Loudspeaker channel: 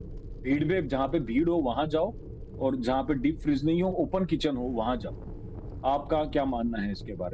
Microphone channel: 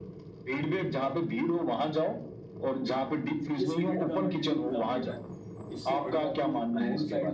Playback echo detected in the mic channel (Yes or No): Yes